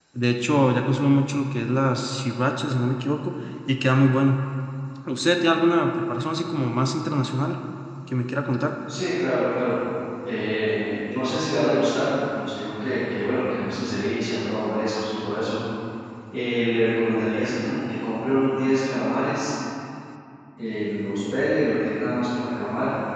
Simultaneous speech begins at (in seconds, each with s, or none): none